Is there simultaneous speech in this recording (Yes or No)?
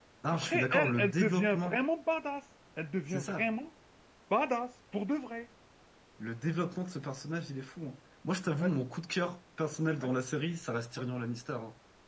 Yes